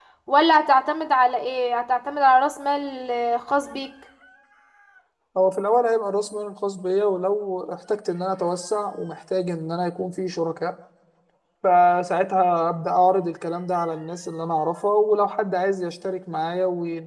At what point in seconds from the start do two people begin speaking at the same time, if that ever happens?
none

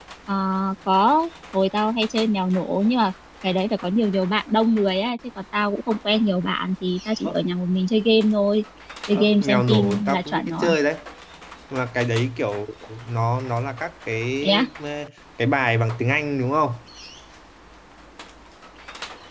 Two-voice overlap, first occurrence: 9.1 s

